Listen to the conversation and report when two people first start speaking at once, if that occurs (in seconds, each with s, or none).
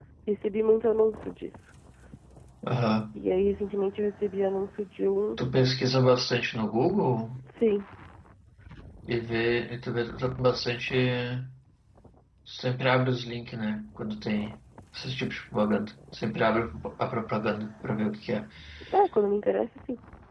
none